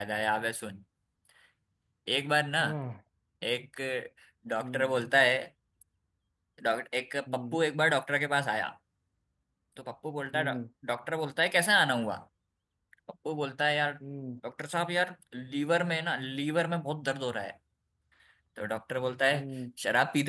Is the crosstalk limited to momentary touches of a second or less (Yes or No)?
Yes